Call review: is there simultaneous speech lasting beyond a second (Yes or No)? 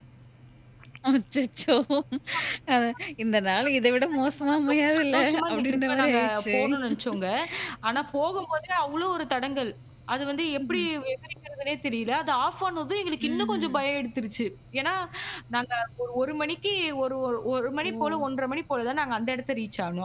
Yes